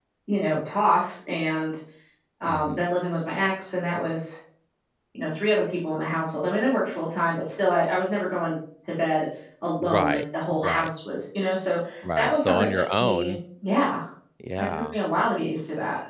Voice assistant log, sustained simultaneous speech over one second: present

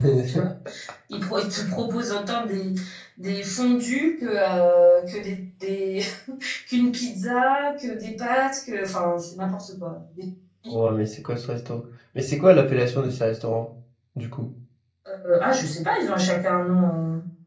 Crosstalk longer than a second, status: none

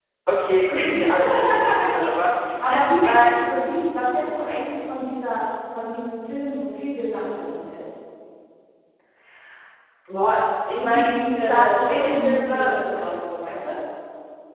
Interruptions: present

